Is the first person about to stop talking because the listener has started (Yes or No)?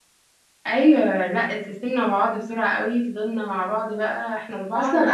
Yes